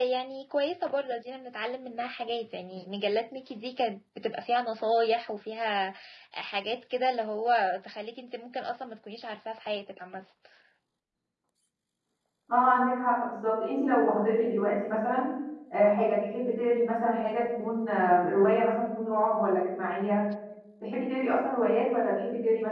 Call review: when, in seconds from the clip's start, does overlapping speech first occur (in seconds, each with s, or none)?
none